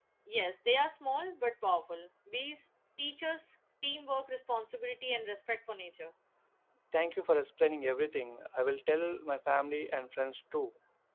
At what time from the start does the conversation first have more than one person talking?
none

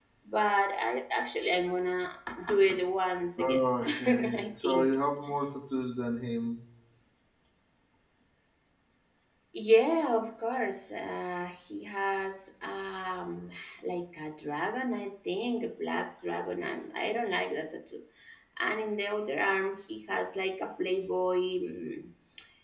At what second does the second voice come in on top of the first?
3.4 s

